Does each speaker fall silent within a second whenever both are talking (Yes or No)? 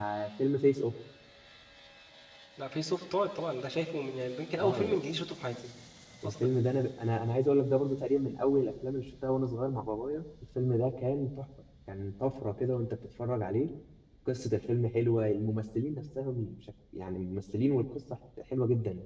Yes